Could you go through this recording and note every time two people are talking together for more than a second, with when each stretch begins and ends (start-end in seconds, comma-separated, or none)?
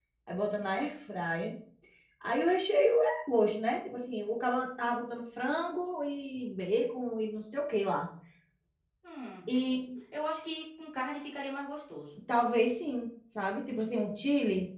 none